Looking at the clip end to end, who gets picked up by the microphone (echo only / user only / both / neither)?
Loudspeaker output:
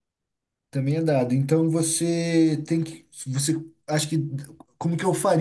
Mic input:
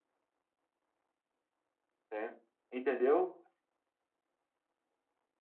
user only